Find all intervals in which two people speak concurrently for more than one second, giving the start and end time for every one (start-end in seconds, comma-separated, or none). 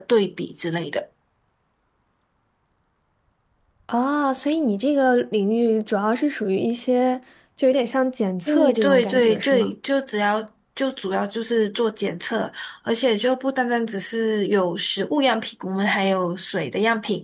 8.5-9.7